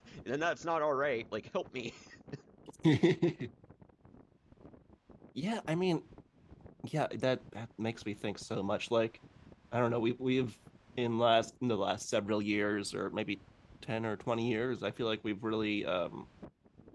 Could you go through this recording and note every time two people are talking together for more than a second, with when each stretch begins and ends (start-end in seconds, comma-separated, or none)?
none